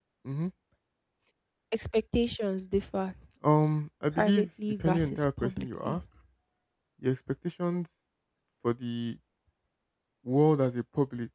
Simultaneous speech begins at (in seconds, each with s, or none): 4.1 s